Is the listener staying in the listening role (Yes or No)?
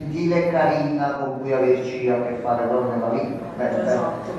No